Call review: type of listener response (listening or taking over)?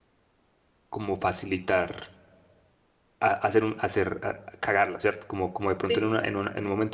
listening